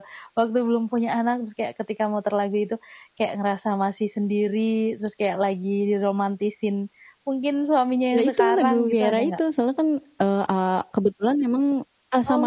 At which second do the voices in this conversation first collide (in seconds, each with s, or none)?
8.1 s